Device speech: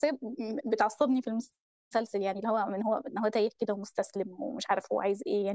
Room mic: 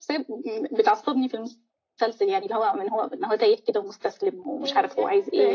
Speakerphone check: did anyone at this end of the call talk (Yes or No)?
Yes